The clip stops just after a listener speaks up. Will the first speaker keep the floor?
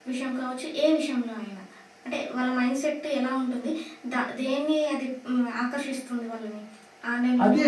No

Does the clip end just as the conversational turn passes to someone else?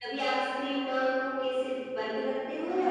Yes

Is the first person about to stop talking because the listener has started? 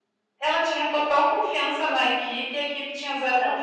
Yes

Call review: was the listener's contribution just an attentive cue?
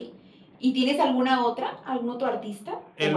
No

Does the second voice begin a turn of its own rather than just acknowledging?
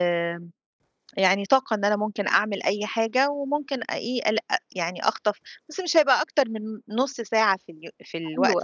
Yes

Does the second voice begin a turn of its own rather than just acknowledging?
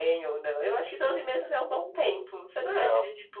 No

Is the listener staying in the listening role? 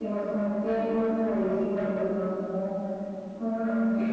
Yes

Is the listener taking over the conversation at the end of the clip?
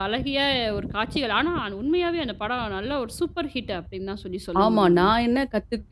Yes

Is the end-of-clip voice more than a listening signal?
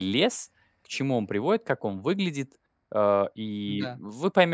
No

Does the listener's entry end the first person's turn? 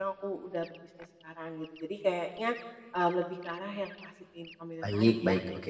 Yes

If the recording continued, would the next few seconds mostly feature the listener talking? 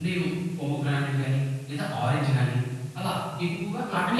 Yes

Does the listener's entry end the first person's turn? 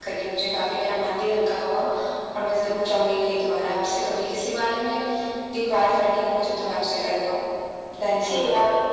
Yes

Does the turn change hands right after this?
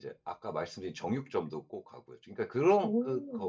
No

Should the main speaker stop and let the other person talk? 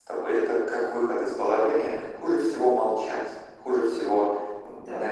No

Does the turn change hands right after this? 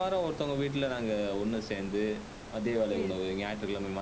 No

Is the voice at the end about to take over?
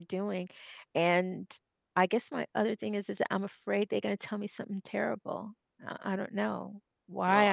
Yes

